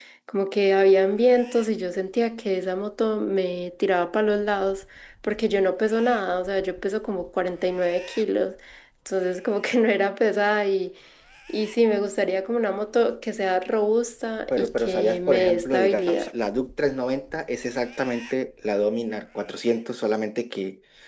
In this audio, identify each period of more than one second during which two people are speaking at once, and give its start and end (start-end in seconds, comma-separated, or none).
14.5-16.2